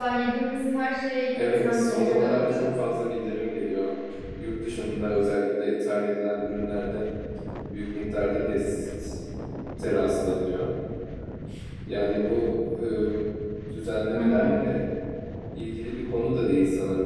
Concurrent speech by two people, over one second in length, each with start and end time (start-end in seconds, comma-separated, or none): 1.4-2.7